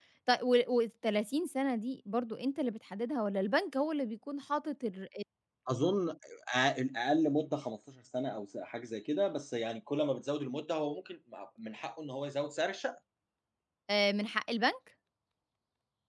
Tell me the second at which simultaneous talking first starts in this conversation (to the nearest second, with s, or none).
none